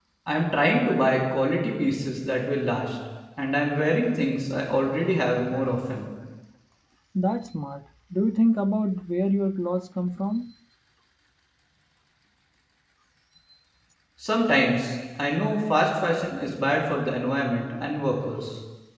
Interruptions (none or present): none